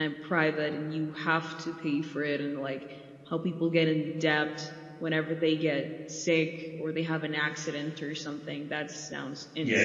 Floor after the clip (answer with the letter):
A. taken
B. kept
A